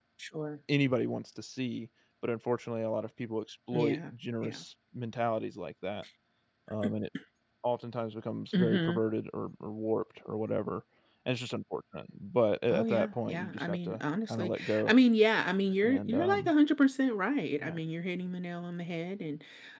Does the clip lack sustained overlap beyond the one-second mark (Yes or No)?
No